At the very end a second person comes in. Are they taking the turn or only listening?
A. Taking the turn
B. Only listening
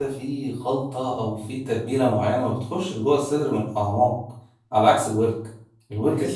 A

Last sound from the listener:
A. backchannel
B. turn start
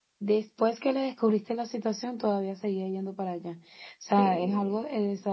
A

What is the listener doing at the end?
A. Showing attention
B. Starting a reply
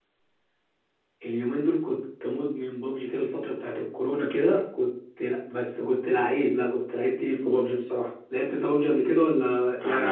B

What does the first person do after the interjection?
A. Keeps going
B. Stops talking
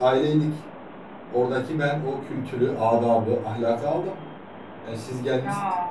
A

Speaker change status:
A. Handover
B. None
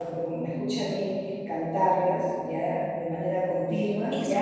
A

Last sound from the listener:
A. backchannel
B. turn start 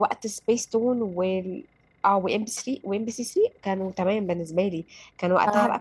A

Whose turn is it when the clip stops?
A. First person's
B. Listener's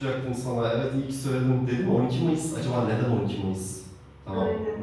B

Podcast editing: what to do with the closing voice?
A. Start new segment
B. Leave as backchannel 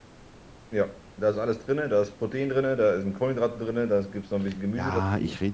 A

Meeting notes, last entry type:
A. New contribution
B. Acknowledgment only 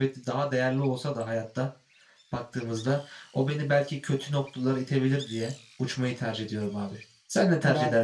A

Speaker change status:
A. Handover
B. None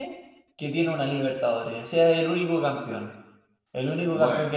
B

